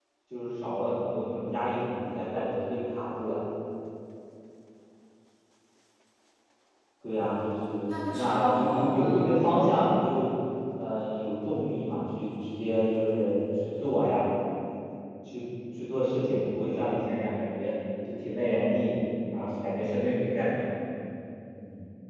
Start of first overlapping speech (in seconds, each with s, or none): 7.9 s